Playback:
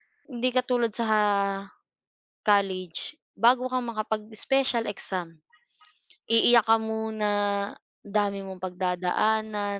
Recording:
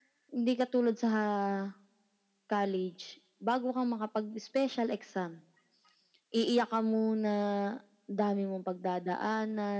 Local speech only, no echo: none

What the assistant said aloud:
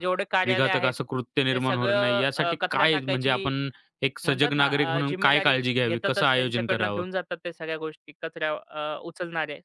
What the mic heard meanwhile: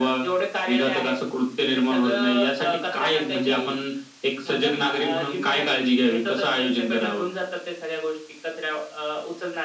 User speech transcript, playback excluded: none

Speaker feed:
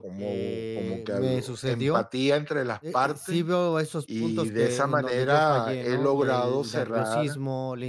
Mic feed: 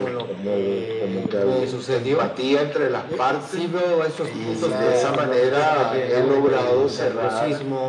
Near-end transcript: en esa en esa manera de que,

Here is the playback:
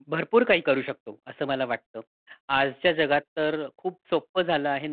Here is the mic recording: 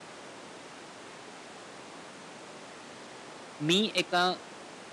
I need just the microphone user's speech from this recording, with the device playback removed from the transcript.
मी एका

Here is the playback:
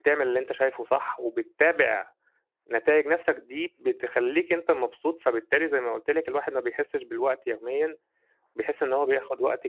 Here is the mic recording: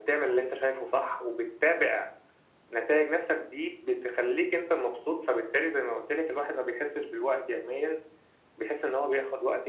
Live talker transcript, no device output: none

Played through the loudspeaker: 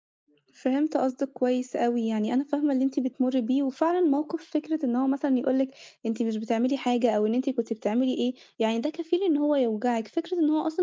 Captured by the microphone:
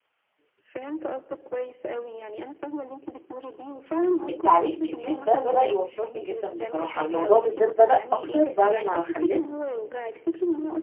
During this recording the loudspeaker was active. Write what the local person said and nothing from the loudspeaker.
التعليق كتير ده بدأ يوتّرني جدًا بصراحة، الموضوع بالذات بدأ أكتر بعد ما خلّفت.

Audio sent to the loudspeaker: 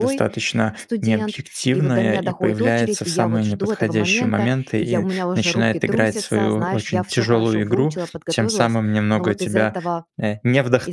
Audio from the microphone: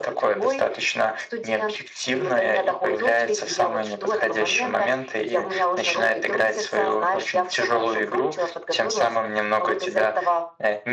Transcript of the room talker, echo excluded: none

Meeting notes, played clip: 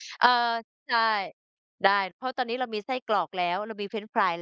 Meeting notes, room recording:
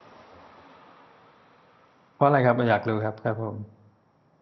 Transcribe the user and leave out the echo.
ๆเพราะอะไรครับอยากรู้ครับครับผม

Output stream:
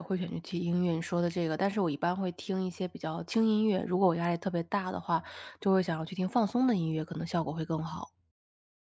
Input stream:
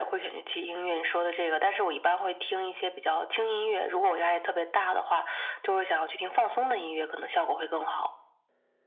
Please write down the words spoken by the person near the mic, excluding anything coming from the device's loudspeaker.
none

